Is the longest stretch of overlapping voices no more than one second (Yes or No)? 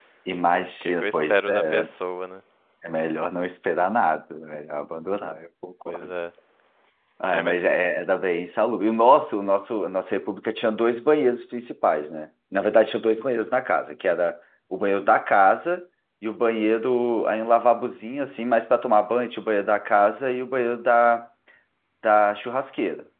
No